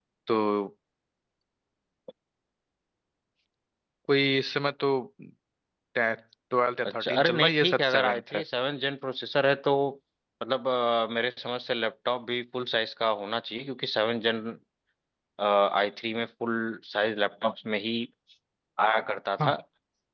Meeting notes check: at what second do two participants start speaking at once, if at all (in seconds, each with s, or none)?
7.0 s